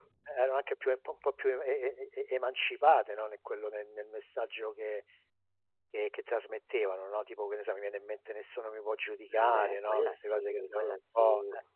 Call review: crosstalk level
present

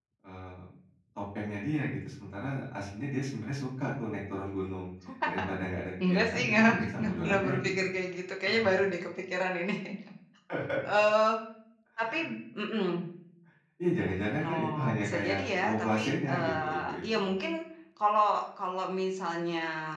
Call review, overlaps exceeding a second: present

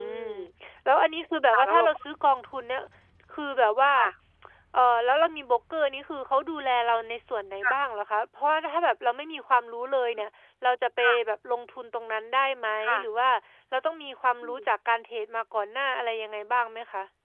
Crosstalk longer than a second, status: none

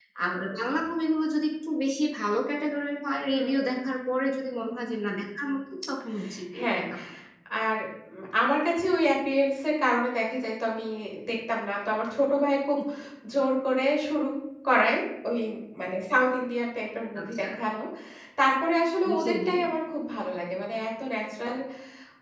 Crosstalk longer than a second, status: none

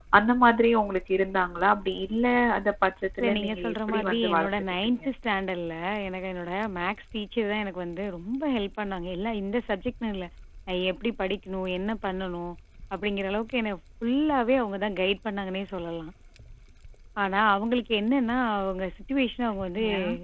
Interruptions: present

